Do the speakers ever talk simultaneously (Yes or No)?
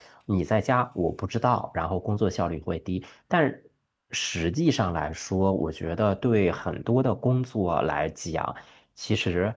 No